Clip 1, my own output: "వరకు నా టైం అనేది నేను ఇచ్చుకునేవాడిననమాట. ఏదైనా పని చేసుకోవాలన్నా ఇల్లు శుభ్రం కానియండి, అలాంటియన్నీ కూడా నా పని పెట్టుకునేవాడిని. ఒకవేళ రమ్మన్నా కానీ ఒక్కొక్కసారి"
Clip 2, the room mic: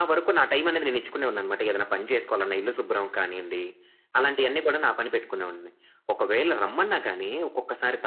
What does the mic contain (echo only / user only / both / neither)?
echo only